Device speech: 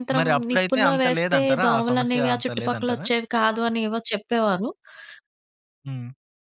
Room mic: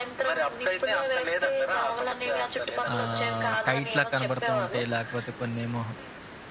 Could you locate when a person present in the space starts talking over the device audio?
2.9 s

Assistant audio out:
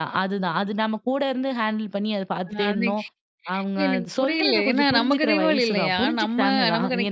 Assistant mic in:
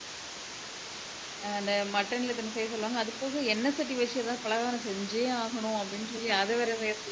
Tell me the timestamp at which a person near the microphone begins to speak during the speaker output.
1.4 s

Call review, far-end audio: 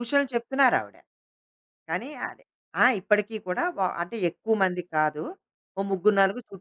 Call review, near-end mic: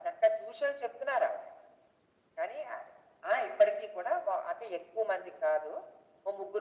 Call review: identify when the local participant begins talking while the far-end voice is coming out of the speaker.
none

